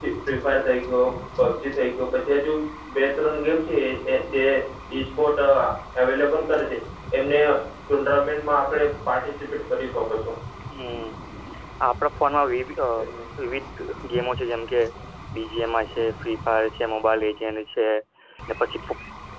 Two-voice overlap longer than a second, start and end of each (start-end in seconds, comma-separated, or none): none